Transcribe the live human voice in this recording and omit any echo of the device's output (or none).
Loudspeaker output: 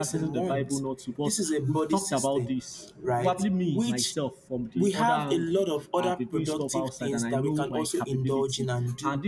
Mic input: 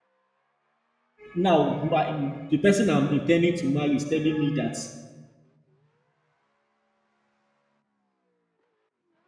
Now, my, the person I'm intending to marry is telling me that